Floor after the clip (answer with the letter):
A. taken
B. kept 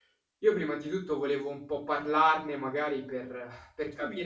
B